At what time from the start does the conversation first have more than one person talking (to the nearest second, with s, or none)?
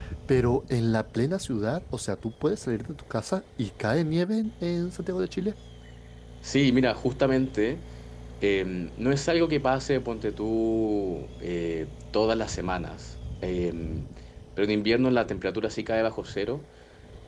none